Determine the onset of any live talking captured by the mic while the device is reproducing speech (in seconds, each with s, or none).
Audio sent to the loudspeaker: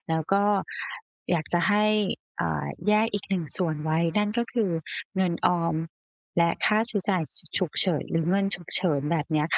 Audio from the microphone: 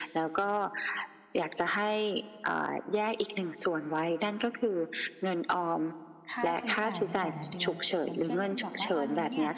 6.3 s